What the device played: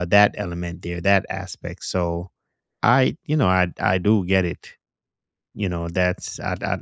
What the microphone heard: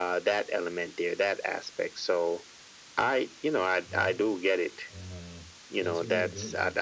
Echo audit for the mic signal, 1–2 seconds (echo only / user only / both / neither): echo only